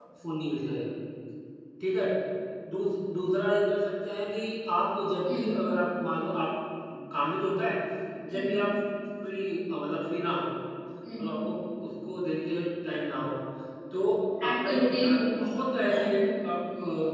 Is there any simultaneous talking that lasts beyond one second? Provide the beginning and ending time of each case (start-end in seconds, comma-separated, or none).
14.5-16.1